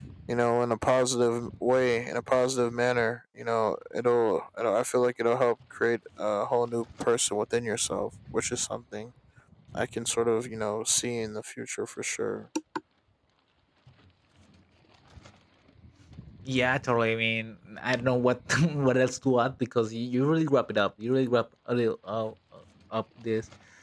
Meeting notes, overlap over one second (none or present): none